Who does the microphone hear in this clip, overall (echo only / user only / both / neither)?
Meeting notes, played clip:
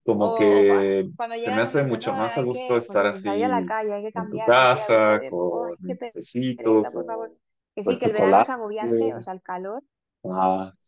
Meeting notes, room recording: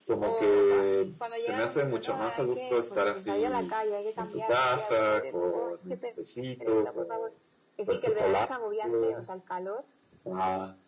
echo only